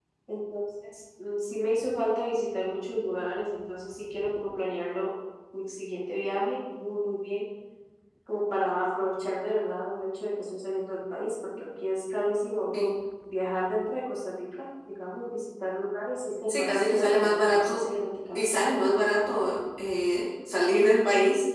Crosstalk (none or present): present